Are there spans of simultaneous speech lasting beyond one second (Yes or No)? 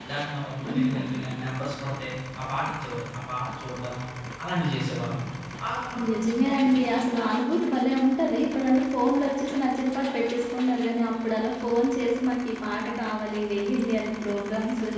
No